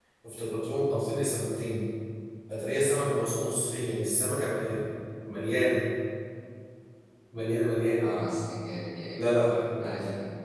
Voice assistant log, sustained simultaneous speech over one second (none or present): none